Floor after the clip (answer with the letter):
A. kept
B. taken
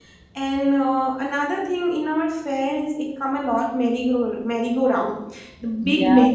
A